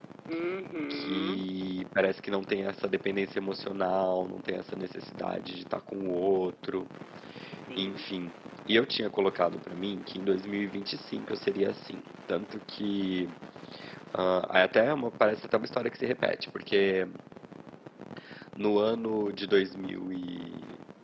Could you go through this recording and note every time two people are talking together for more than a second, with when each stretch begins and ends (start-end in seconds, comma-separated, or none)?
none